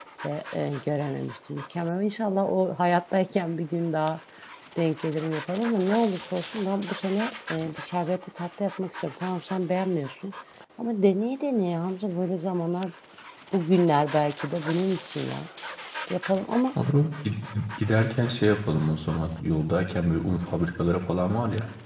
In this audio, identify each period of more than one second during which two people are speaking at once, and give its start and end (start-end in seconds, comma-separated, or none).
none